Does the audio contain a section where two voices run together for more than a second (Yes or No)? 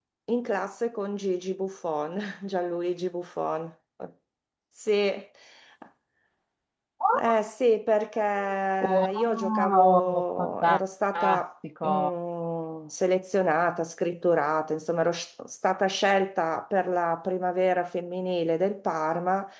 Yes